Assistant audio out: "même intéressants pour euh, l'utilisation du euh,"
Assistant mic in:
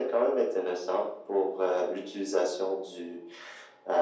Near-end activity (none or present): none